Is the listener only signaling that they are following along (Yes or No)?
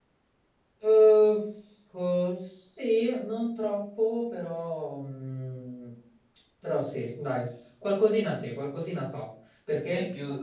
No